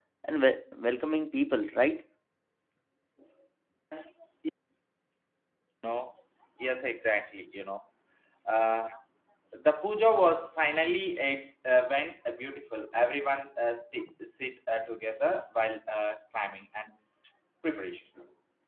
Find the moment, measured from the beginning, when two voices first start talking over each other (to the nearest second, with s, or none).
none